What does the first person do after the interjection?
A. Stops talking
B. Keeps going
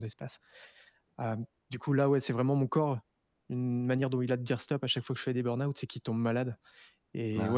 B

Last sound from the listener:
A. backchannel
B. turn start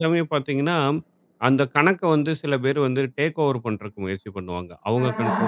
A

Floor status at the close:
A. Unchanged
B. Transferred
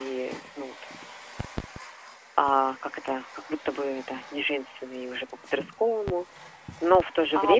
B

